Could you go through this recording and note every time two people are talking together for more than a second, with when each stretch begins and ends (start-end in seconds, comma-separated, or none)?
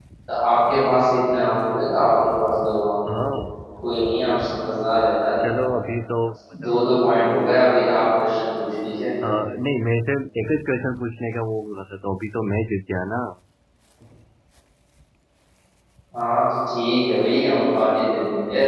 none